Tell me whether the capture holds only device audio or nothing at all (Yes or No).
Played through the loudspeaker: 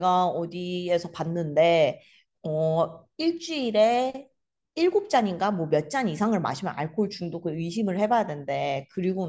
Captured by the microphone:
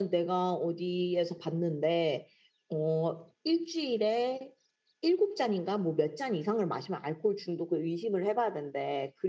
Yes